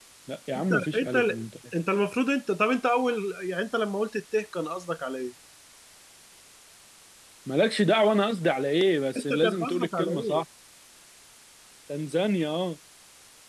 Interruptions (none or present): present